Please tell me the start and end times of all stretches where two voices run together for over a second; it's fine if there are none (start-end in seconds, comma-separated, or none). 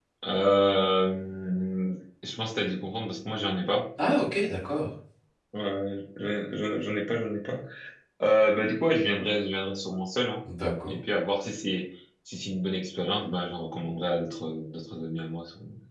none